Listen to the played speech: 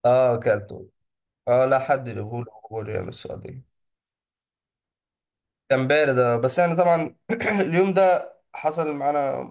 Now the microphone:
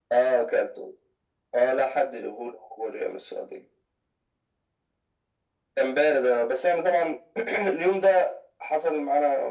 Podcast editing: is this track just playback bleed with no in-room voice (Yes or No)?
Yes